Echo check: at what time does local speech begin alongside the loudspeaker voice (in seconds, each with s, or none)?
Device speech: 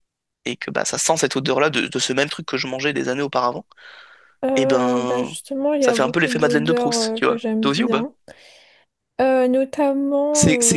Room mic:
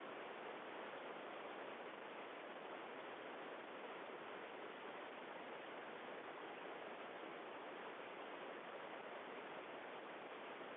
none